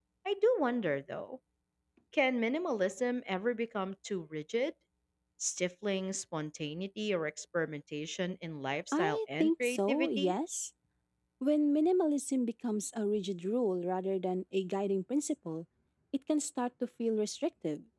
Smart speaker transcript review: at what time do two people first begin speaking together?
8.9 s

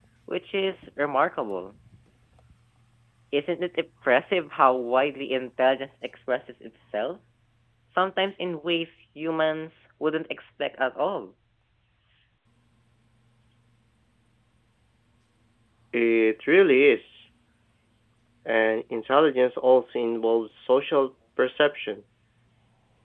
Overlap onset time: none

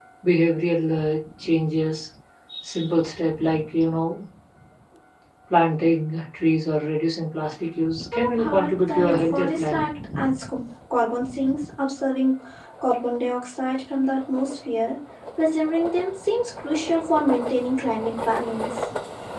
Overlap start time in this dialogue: 8.1 s

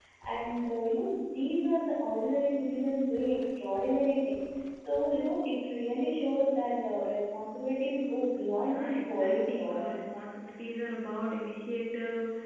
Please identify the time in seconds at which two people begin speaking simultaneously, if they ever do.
8.5 s

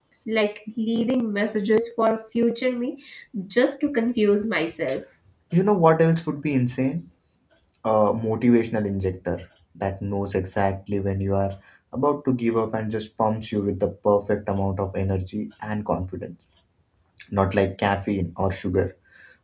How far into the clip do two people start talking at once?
none

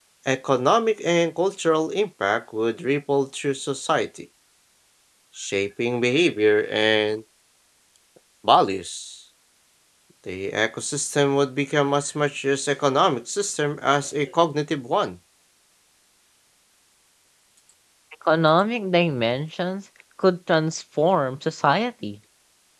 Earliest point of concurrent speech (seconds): none

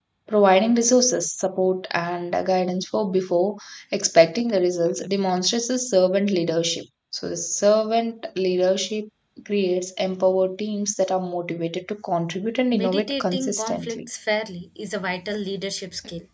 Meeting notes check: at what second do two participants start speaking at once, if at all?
12.7 s

